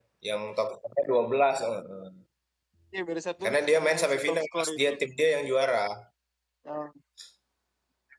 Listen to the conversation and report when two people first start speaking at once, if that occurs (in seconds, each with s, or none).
3.4 s